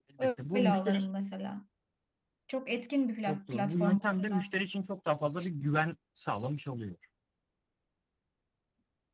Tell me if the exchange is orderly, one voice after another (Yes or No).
No